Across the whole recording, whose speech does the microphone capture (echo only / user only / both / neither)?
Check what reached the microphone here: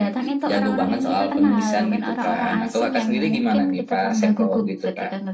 echo only